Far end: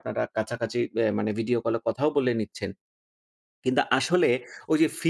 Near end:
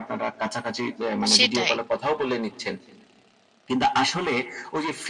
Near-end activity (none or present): present